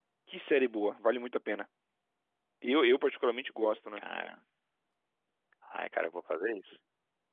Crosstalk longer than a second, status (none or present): none